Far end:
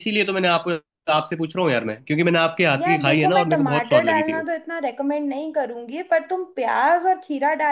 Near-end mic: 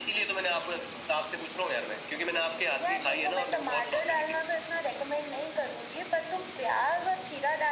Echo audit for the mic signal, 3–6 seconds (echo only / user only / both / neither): echo only